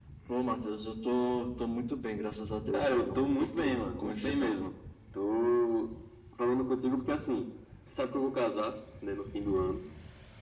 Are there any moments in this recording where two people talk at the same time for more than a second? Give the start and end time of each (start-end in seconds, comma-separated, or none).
2.7-4.6